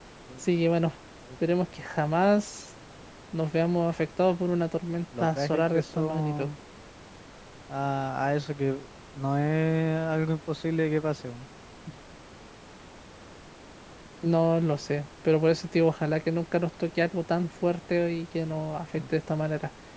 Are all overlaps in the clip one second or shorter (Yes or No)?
No